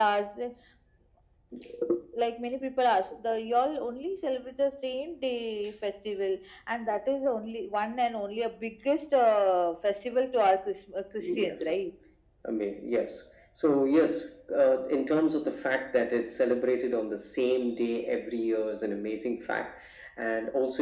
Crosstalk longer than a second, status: none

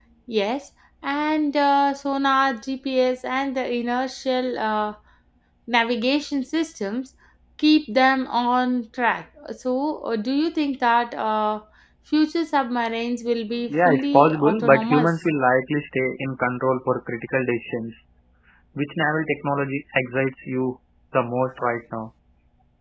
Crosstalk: present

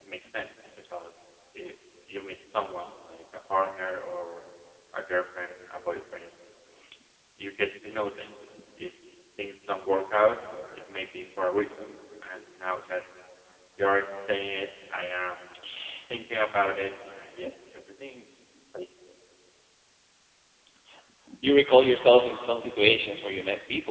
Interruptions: none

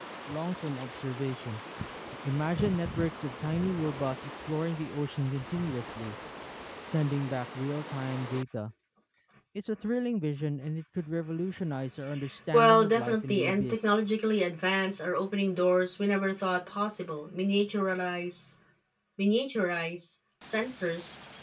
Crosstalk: present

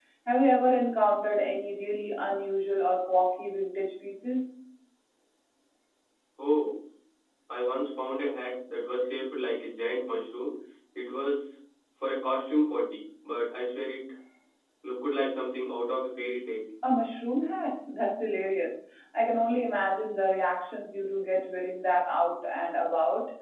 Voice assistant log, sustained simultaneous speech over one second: none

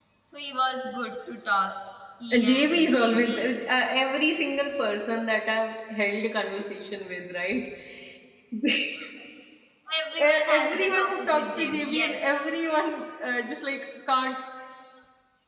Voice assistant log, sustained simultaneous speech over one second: present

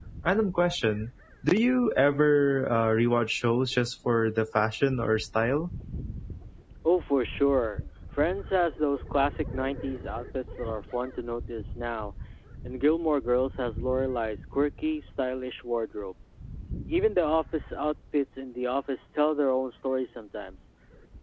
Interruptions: none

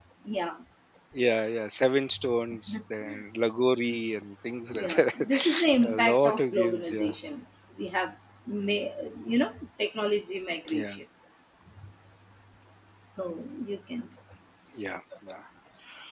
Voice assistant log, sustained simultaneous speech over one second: present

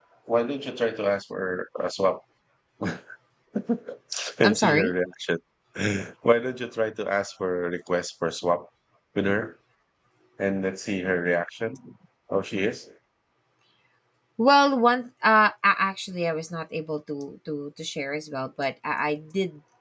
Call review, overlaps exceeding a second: none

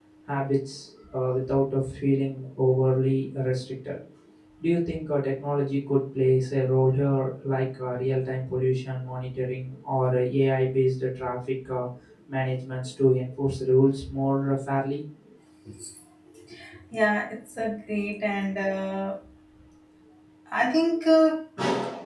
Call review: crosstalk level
none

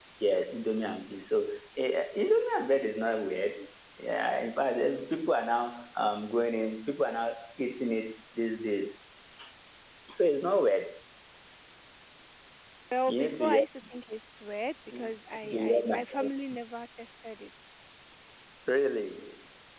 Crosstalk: present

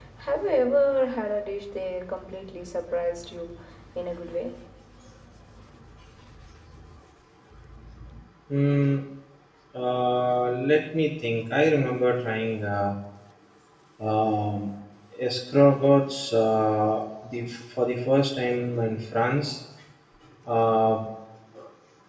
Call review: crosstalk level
none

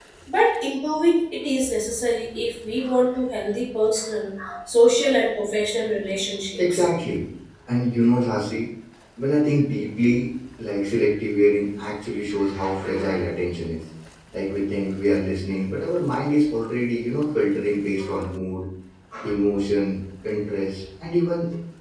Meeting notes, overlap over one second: none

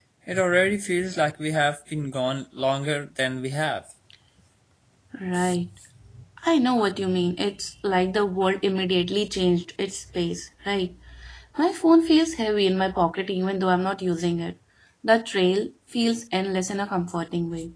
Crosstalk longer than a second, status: none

